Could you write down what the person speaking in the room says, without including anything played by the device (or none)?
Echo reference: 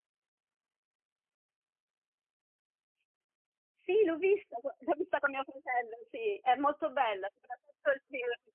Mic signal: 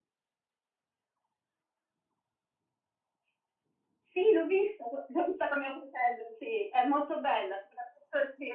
none